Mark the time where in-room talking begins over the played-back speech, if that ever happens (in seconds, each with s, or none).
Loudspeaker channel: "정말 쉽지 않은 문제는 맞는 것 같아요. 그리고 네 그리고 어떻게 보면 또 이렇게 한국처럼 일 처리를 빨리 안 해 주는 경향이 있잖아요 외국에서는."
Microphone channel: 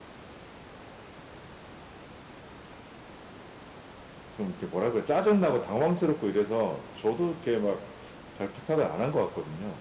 4.3 s